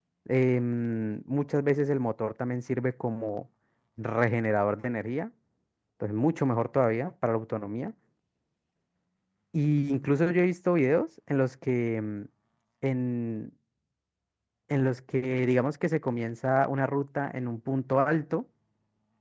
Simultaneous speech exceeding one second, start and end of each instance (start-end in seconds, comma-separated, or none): none